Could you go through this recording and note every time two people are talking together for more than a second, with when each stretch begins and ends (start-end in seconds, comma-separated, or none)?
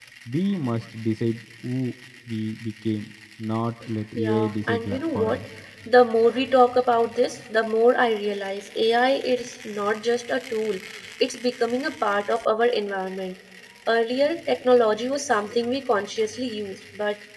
4.2-5.4